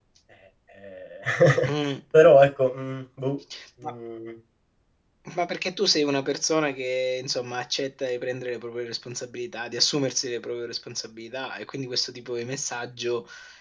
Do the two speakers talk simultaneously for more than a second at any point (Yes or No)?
No